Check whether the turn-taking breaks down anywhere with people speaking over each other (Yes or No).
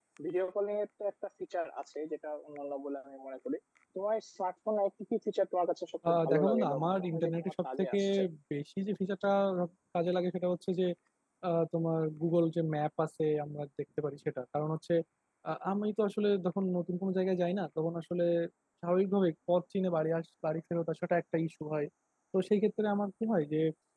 Yes